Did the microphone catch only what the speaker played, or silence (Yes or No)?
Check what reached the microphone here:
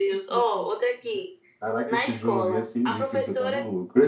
No